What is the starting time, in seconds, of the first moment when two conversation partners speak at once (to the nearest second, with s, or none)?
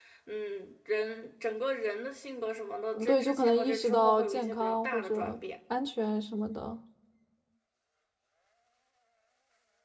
3 s